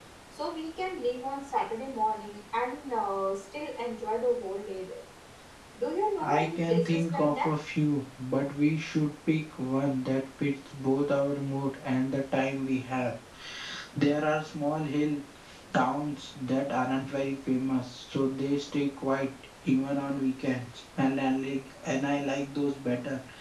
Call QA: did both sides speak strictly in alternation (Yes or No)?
No